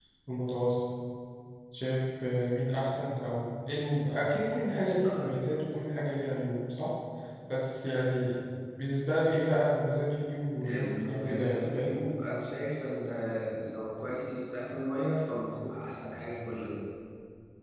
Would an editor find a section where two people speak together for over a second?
Yes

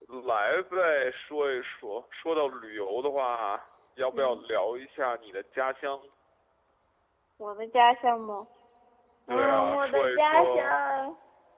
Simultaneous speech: Yes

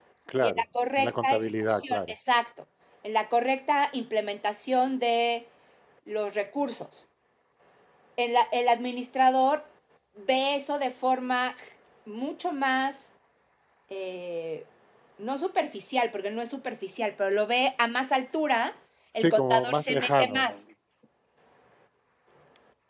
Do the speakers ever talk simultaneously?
Yes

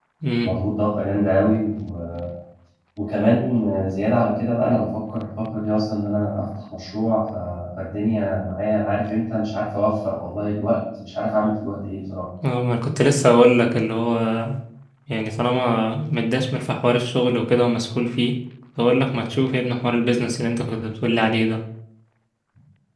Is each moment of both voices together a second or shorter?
Yes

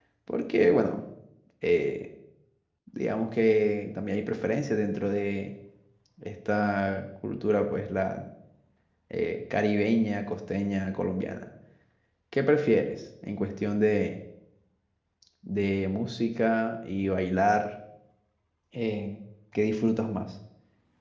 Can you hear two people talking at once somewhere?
No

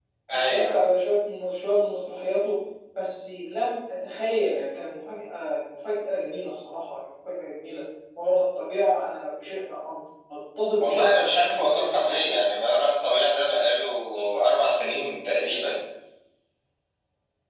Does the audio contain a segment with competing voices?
Yes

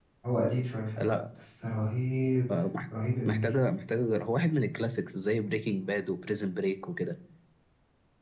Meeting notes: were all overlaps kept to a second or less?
Yes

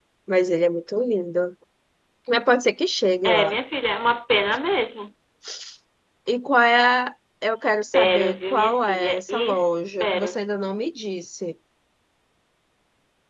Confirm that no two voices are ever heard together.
No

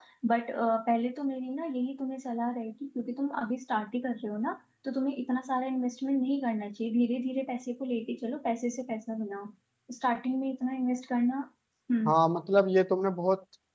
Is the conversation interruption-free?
Yes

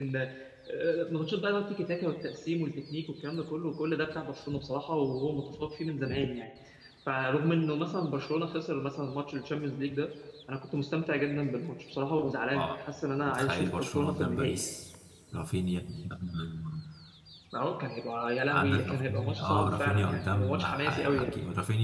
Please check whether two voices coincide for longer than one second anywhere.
Yes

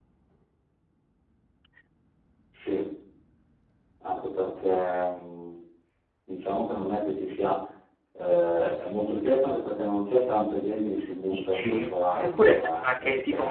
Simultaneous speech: Yes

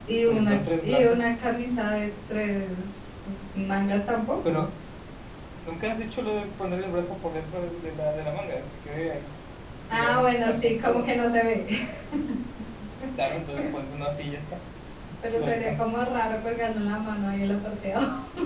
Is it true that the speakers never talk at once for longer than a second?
No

